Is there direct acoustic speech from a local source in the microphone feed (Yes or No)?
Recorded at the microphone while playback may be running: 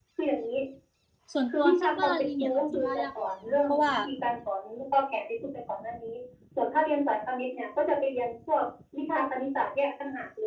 Yes